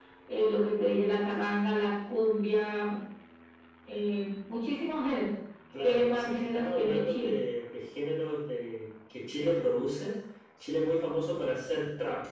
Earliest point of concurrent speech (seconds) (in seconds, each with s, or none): 5.8 s